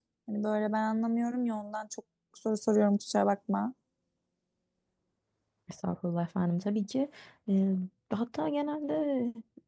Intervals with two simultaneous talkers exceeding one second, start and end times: none

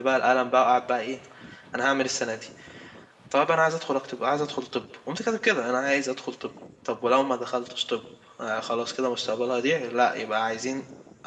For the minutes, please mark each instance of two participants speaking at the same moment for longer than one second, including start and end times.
none

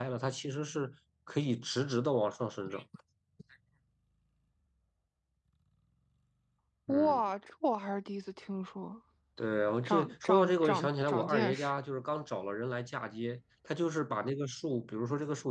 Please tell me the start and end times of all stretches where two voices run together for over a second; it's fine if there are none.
9.8-11.7

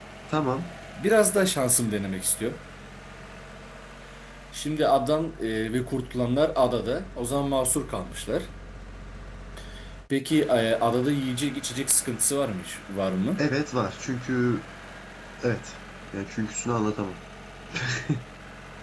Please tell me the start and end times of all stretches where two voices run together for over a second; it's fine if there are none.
none

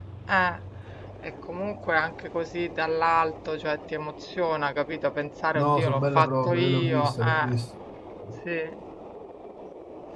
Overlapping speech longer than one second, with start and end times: 5.5-7.5

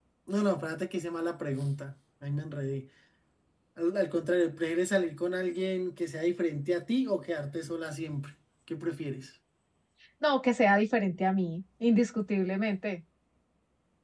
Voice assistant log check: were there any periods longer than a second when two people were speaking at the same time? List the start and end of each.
none

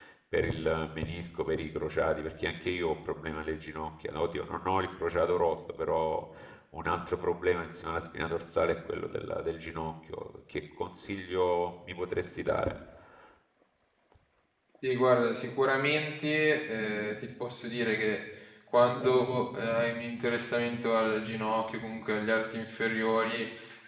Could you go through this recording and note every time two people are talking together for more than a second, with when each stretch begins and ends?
none

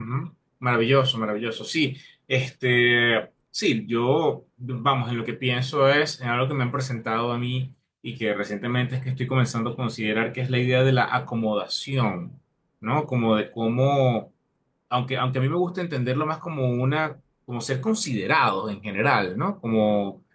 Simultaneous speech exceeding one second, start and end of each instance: none

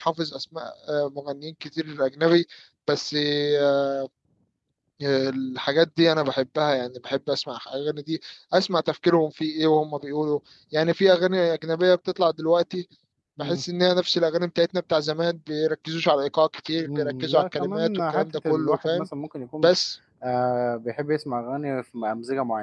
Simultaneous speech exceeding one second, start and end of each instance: 16.8-19.1

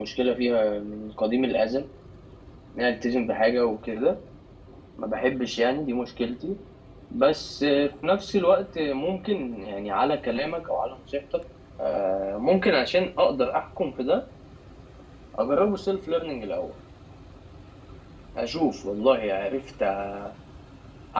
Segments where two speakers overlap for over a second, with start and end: none

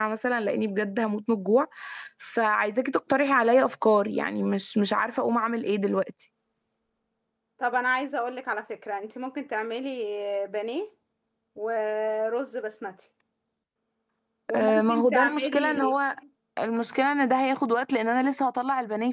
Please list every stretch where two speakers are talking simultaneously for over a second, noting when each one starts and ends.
14.5-16.0

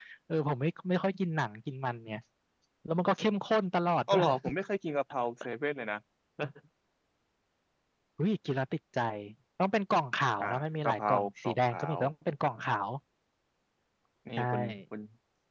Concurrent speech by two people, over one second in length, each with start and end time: 10.4-12.0

